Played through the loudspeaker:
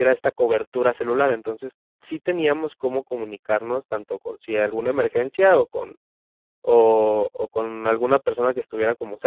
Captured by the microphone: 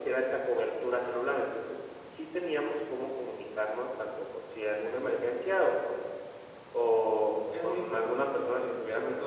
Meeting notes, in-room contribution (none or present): present